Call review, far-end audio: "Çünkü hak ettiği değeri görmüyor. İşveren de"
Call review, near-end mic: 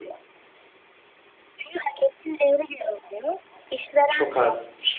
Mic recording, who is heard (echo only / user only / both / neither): both